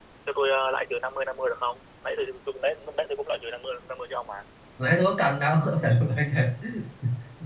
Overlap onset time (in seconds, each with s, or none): none